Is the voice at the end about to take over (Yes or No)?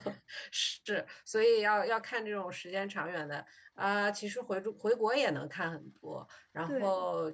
No